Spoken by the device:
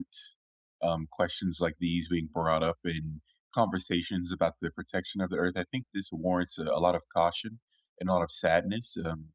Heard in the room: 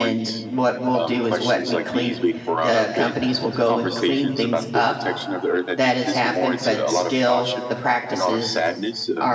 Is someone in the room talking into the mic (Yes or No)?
Yes